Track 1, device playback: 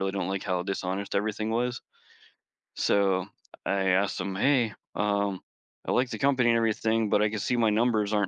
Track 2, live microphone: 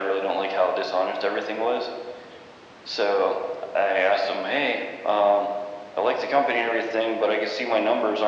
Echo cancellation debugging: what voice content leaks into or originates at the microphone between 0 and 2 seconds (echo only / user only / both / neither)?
echo only